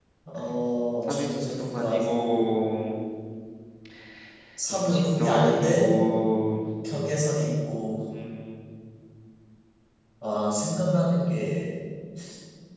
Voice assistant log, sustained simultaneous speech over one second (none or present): present